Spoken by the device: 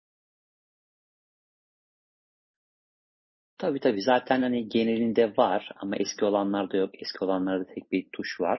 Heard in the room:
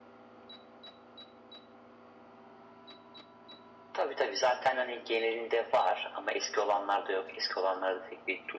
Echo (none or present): present